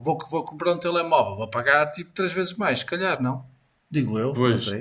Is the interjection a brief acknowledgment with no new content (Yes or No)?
No